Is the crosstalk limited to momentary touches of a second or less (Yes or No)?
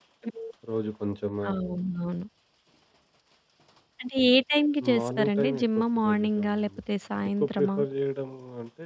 No